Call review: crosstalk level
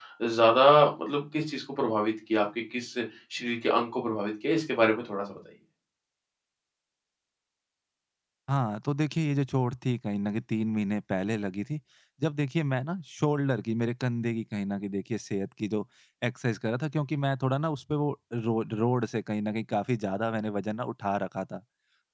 none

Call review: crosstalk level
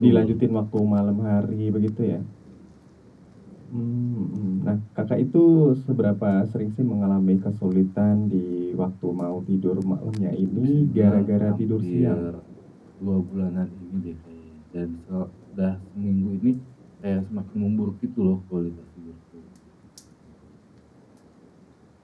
present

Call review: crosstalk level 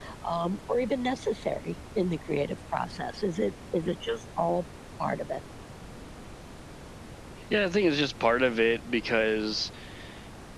none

